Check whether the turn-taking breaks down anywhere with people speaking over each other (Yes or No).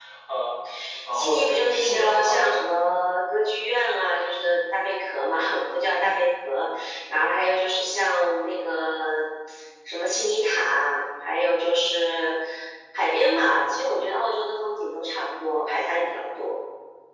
Yes